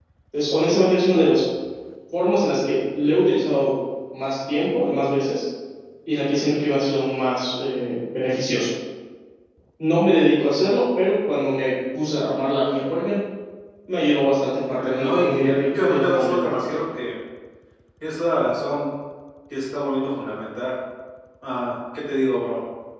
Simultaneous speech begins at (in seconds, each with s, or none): 14.8 s